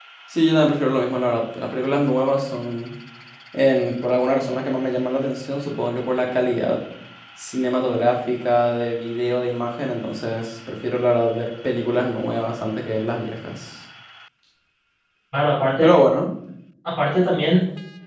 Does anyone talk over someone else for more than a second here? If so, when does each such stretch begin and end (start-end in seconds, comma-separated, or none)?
none